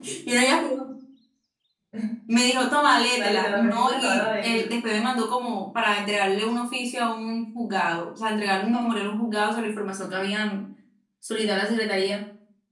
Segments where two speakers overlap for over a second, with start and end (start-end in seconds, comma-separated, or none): 3.2-4.7